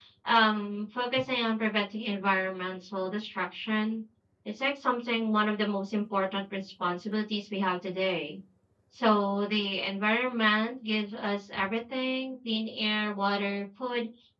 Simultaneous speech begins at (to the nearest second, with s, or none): none